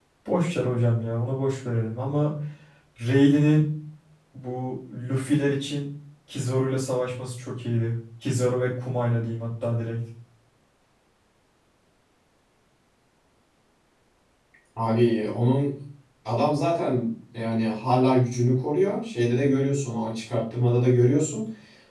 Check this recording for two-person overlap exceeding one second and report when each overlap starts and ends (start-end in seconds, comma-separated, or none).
none